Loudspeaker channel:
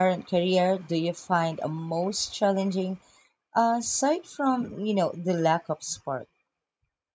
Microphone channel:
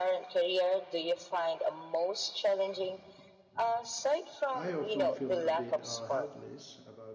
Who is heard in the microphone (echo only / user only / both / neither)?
both